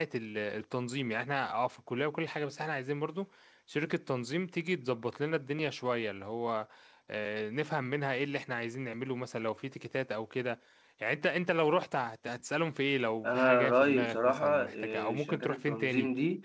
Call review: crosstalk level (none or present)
present